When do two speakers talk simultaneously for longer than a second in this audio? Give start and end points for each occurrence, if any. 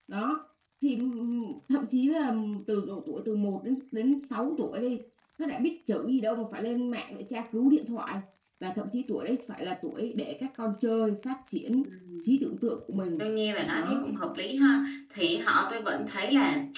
none

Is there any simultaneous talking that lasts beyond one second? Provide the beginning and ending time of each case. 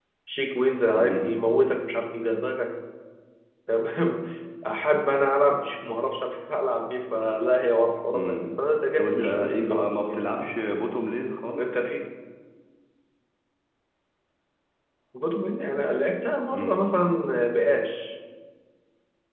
9.0-10.3

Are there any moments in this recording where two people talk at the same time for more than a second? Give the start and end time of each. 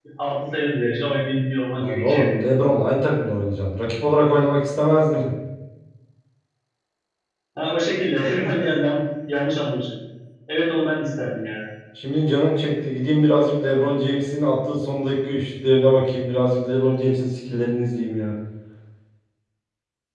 none

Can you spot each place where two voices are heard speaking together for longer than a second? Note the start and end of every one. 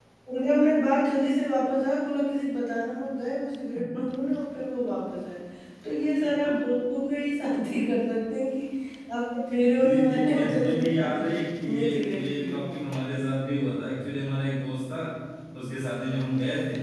9.8-12.6

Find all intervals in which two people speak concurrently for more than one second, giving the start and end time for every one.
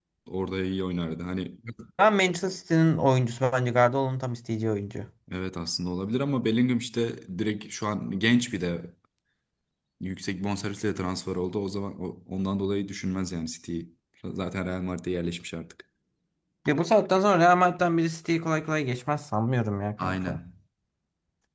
none

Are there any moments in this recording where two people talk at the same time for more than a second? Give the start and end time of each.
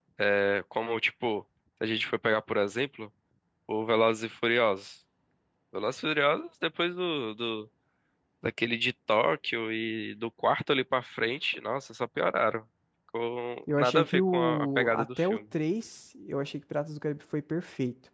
13.7-15.4

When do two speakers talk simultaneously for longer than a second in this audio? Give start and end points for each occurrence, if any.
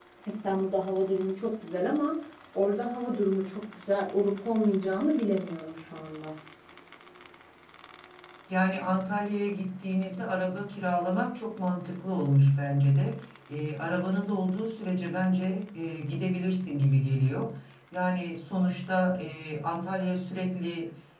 none

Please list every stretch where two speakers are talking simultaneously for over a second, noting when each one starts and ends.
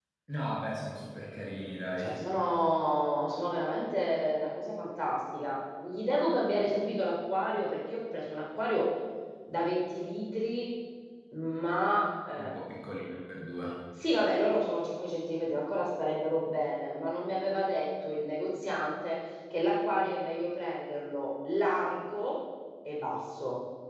none

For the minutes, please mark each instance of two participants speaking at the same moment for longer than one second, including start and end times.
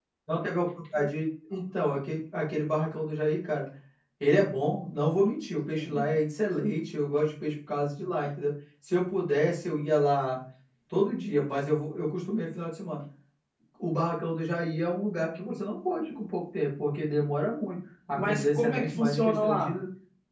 18.1-19.7

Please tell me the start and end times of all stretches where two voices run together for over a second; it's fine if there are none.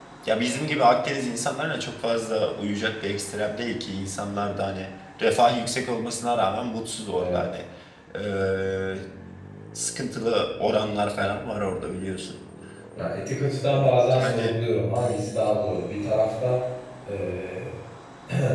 none

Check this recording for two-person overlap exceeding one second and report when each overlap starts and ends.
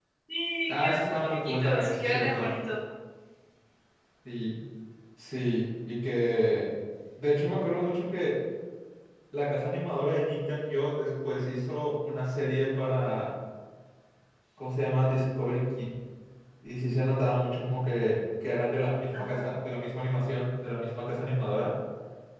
0.7-2.5

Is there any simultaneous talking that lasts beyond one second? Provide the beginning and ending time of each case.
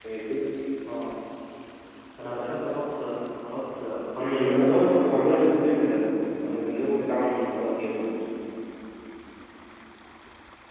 4.2-5.5

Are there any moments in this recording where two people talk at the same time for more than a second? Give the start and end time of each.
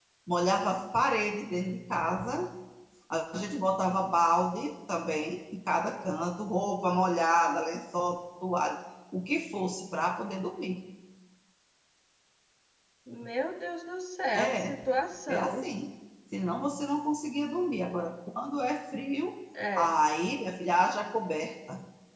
none

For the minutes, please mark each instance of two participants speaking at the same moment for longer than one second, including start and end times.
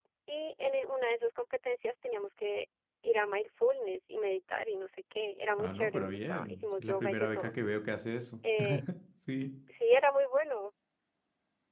5.6-7.5

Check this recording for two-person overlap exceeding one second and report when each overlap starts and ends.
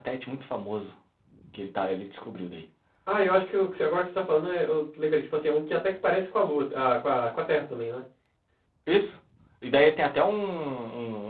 none

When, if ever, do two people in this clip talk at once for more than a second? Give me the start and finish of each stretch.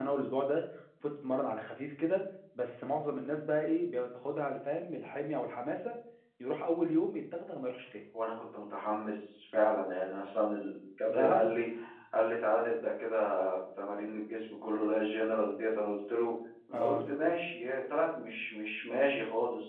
none

